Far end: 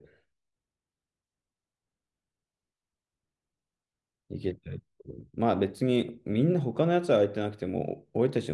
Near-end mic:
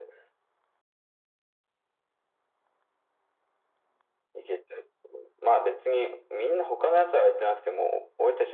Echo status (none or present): present